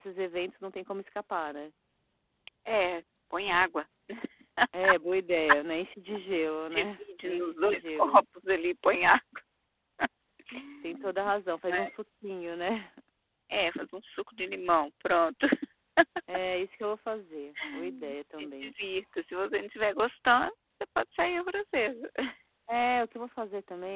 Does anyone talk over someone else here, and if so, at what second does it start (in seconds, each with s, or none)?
6.7 s